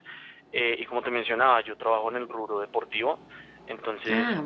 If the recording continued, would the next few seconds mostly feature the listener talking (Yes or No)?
No